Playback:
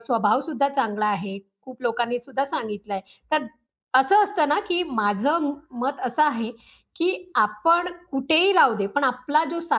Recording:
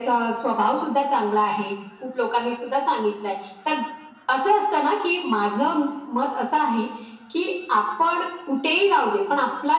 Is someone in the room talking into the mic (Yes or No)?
No